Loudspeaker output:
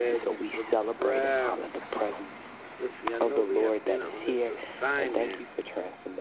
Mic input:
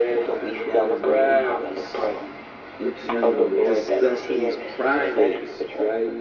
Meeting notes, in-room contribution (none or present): present